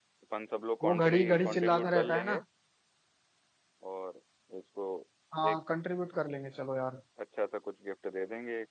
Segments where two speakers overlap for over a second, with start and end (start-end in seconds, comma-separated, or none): 0.8-2.4